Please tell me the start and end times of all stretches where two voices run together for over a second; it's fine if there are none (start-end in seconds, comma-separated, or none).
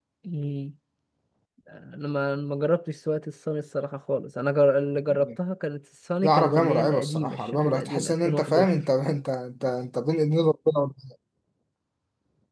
6.2-8.7